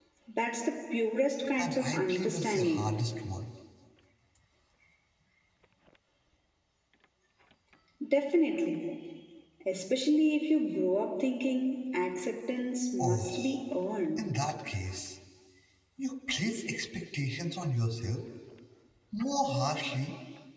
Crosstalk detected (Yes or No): Yes